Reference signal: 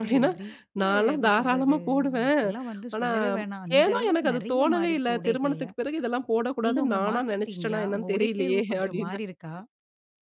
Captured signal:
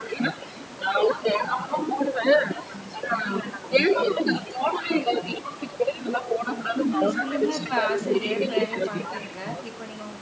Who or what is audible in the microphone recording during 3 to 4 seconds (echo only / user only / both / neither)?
echo only